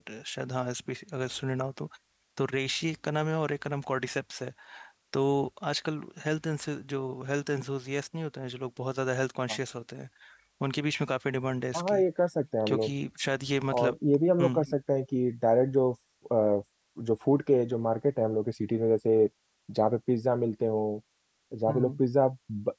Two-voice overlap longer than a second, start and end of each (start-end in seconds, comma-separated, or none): none